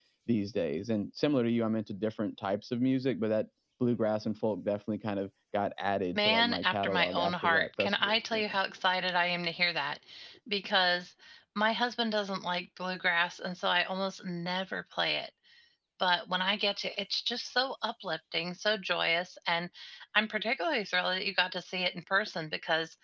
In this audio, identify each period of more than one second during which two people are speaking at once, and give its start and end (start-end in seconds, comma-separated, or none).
6.2-8.4